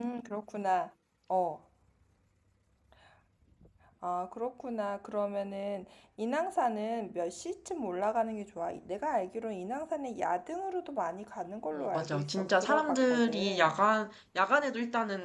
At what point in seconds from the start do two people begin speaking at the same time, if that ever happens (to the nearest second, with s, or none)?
12 s